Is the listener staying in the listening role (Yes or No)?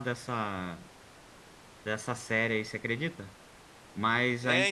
No